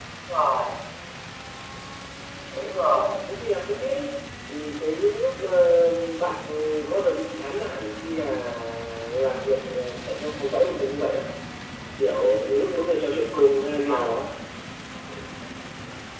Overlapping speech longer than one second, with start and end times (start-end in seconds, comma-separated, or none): none